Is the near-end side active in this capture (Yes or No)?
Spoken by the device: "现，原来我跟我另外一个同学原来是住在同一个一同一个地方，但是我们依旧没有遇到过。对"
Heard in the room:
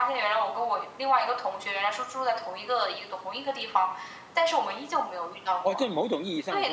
Yes